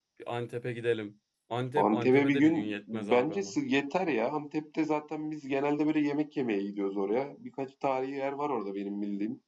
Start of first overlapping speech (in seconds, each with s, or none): 1.8 s